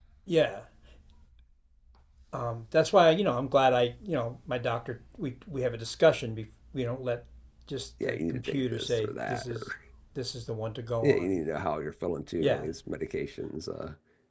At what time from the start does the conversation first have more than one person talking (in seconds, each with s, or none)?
8.0 s